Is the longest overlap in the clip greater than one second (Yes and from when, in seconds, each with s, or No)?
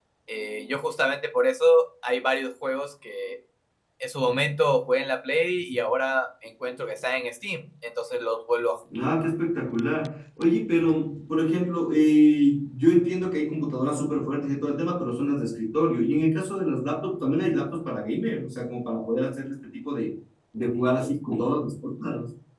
No